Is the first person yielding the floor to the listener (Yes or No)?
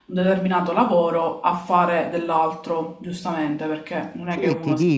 Yes